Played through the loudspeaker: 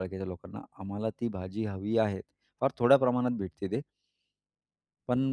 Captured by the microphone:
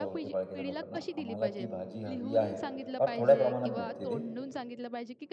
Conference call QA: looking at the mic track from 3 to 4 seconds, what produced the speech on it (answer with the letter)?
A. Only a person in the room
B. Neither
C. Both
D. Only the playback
C